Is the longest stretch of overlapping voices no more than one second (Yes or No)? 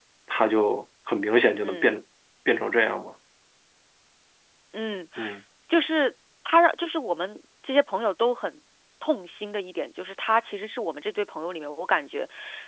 Yes